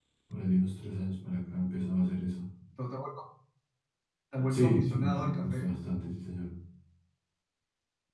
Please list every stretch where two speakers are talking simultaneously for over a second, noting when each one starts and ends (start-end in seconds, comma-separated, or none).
4.5-5.8